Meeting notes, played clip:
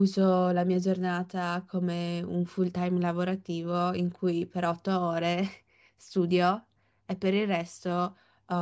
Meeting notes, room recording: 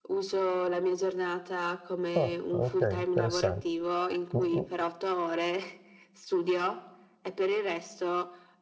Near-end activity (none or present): present